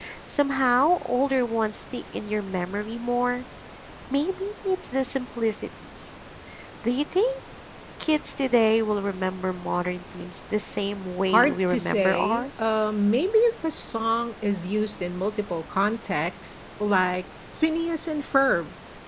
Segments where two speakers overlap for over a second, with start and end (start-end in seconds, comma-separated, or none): 11.3-12.8